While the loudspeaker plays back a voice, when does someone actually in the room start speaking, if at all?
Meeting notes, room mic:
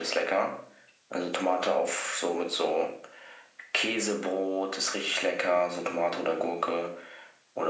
none

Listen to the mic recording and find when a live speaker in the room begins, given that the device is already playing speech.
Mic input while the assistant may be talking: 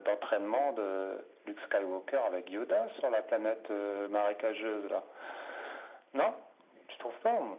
none

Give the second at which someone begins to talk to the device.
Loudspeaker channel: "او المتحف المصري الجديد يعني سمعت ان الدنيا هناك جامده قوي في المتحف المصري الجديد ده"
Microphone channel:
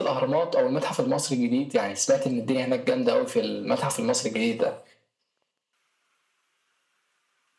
none

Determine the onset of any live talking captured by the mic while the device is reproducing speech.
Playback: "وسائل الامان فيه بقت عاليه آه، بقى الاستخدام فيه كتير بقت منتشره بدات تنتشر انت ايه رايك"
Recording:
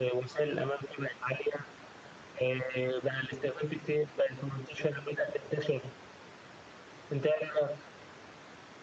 none

